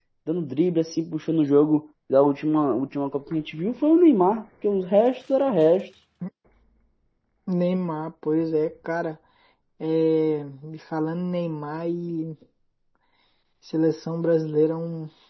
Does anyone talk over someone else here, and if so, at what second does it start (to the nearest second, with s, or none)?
none